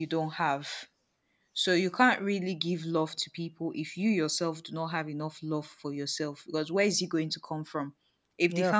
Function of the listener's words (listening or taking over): listening